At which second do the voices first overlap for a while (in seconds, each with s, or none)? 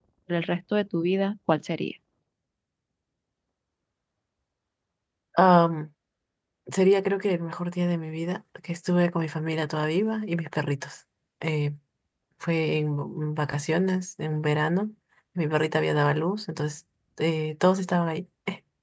none